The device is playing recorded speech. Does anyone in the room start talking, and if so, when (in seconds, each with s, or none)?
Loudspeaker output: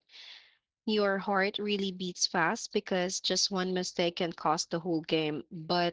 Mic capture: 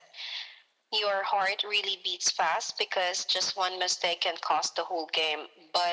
none